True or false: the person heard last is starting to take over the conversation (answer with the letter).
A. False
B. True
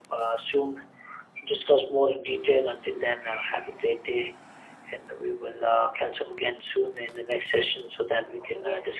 B